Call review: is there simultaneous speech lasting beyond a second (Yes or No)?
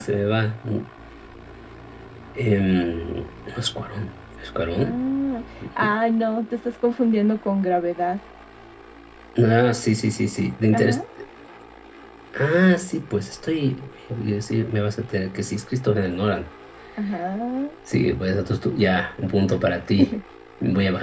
No